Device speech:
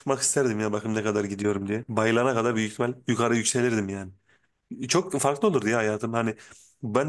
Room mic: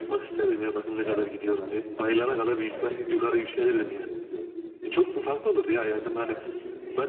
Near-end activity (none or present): present